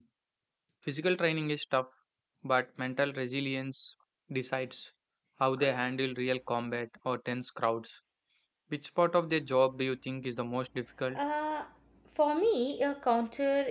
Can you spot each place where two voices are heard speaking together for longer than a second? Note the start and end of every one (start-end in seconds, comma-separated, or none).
none